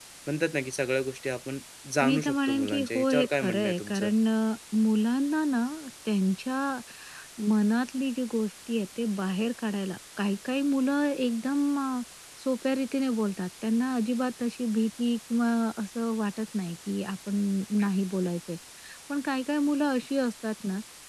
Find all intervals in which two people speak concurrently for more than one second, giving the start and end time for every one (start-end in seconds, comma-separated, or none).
2.0-4.1